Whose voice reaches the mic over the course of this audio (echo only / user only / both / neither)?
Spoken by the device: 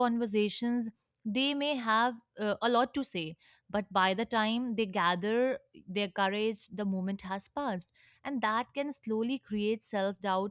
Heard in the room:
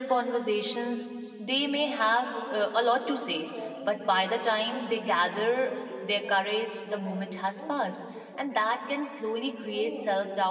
both